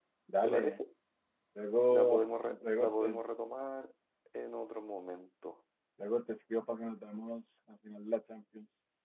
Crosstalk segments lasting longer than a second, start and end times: 1.9-3.2

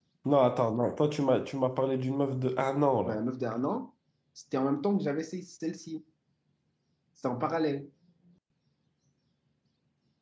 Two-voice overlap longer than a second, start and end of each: none

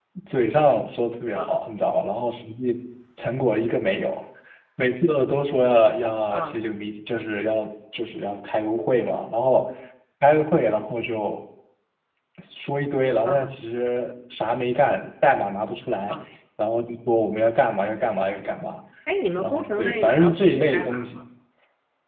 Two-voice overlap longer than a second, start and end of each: 19.4-21.0

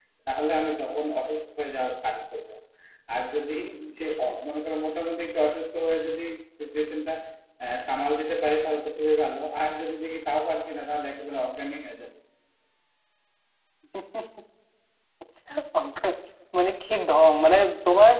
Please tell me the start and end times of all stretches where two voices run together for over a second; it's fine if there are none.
none

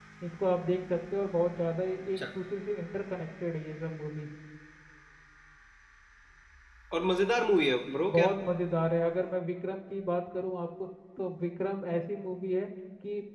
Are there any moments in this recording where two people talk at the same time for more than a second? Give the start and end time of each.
none

